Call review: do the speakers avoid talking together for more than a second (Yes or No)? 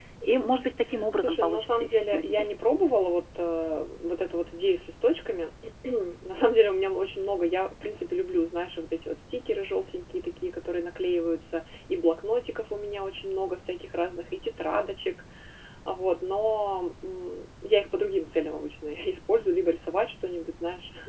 No